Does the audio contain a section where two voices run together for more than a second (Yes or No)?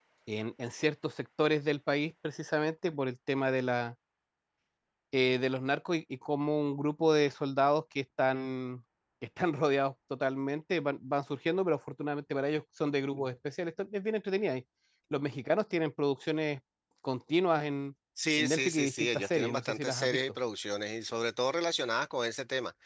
Yes